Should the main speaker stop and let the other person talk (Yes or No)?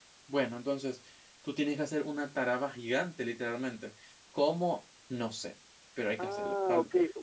Yes